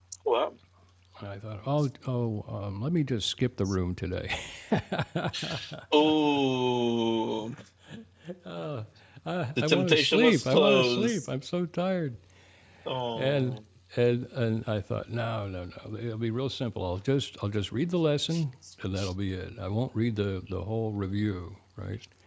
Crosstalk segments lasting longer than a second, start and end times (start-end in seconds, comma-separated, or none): 9.6-11.3